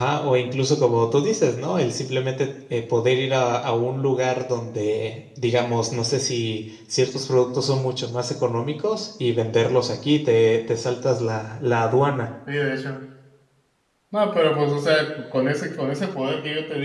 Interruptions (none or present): none